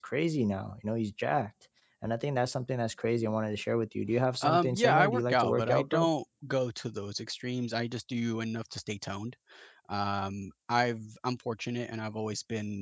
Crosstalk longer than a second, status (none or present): present